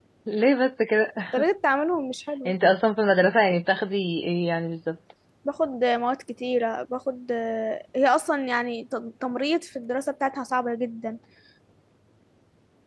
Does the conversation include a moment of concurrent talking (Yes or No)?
No